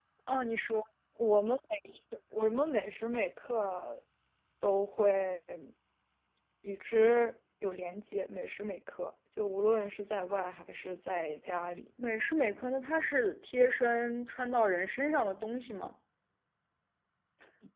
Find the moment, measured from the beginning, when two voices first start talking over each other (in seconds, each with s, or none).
none